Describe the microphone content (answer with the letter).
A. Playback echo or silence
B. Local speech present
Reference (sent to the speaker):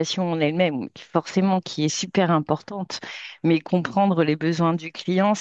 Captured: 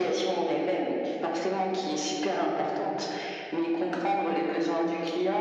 A